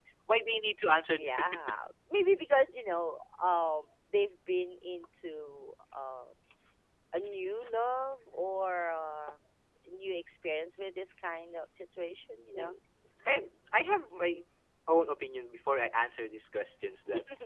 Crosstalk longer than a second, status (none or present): none